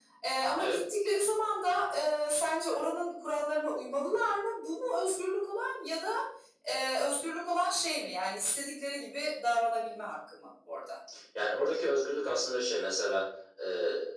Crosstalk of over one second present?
No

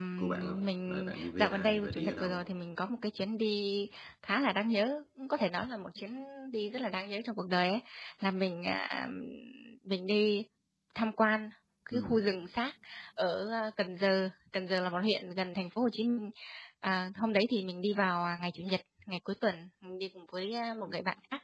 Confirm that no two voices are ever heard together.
No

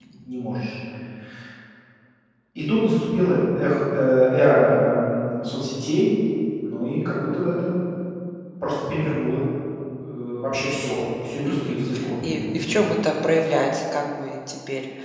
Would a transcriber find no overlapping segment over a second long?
No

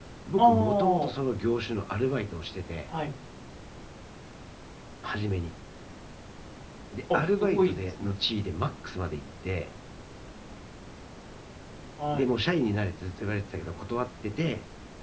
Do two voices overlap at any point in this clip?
Yes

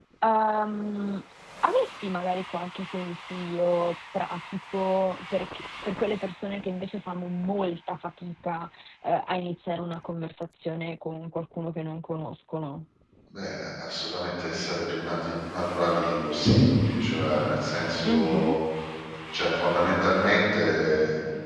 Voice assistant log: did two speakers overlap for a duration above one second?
No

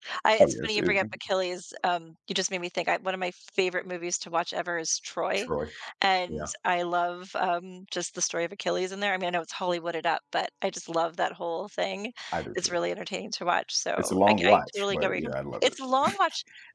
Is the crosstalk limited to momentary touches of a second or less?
No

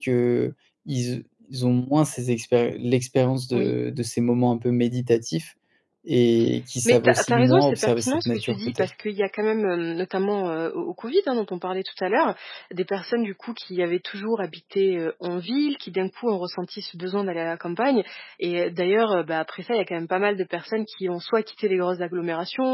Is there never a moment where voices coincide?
No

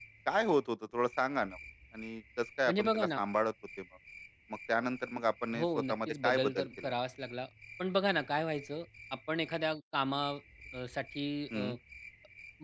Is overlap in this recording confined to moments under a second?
No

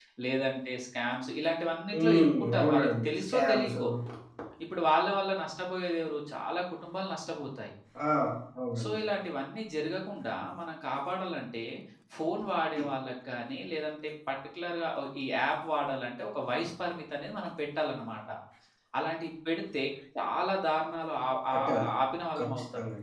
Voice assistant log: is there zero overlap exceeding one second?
No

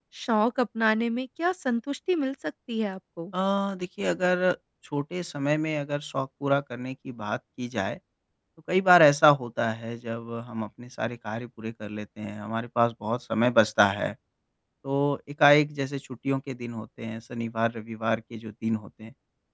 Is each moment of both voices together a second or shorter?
Yes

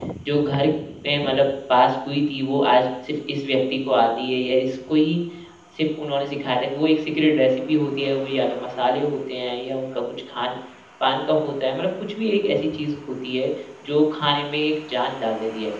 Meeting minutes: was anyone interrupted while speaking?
No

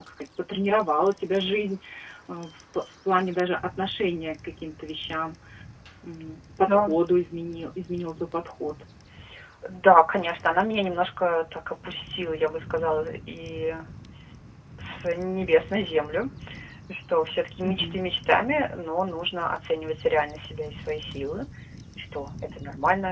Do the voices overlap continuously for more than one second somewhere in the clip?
No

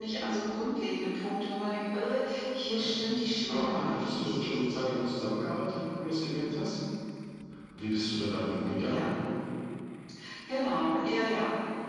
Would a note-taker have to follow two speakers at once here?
Yes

